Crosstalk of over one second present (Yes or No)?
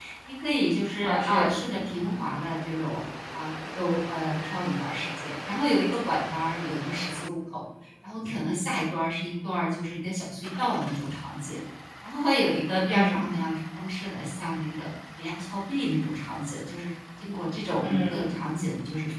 No